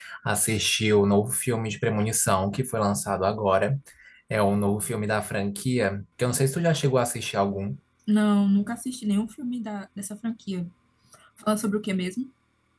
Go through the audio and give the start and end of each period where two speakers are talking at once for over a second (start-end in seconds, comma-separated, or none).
none